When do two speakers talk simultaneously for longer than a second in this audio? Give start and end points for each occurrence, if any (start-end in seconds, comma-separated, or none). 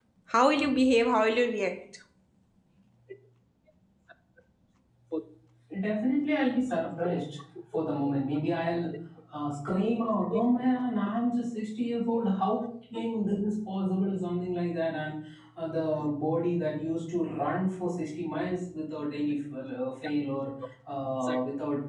none